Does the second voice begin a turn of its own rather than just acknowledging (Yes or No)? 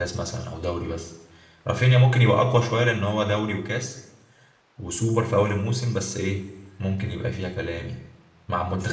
Yes